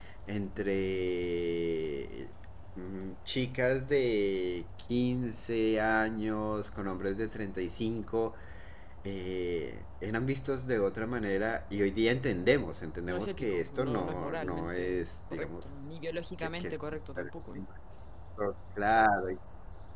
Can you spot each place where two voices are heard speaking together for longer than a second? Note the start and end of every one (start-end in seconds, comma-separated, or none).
13.1-15.6